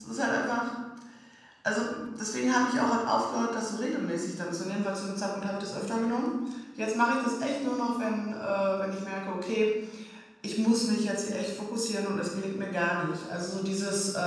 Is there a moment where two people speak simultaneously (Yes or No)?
No